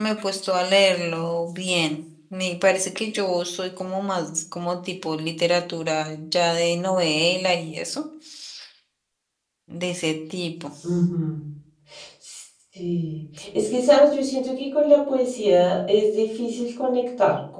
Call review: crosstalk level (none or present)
none